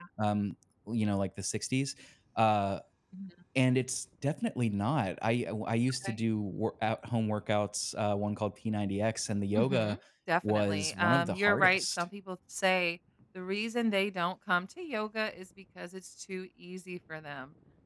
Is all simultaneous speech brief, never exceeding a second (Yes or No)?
No